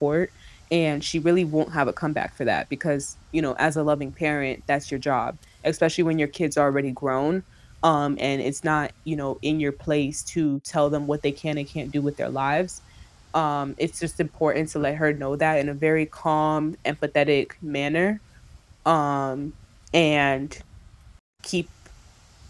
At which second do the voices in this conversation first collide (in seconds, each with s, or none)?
none